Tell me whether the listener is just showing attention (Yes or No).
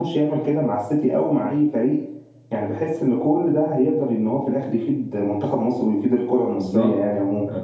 No